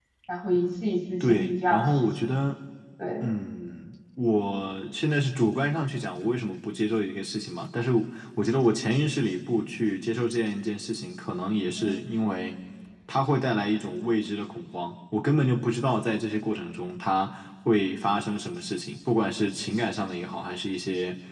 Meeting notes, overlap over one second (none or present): present